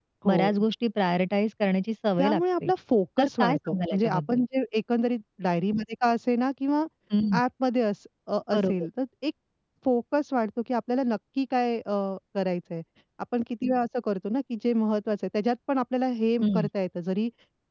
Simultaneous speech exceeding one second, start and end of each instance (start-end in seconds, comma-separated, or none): 3.2-4.4